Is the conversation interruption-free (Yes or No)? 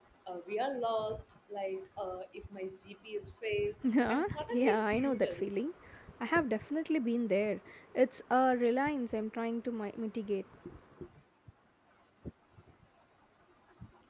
No